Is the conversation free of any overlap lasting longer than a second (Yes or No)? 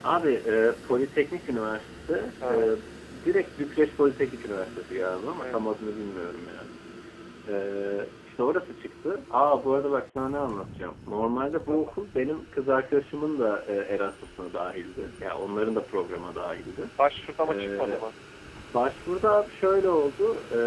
Yes